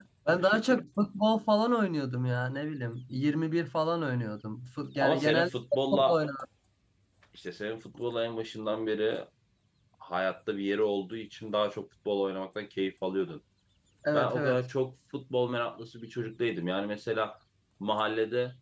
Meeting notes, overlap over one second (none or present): none